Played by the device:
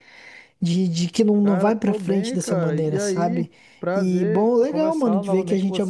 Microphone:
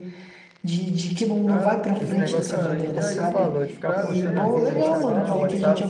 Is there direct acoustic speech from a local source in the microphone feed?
Yes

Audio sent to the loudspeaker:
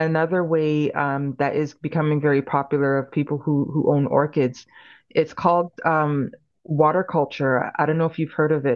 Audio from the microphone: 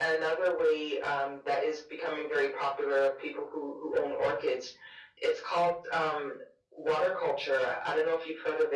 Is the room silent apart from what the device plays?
Yes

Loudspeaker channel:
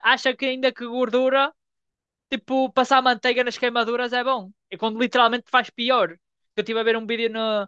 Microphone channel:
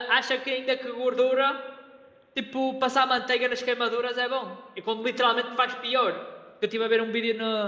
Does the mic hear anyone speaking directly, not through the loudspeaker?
No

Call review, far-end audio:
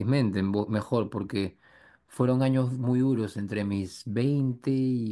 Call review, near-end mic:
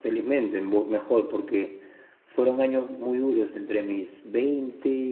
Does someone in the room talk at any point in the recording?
No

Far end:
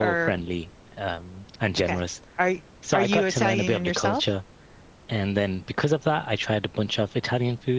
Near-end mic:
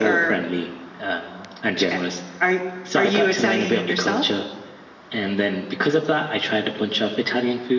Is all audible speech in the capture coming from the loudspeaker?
Yes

